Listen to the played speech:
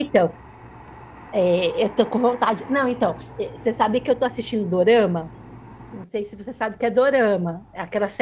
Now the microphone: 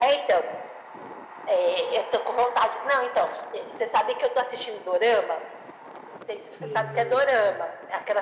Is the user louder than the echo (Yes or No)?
No